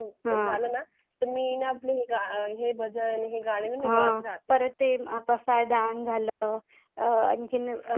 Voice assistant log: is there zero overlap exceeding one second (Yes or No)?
Yes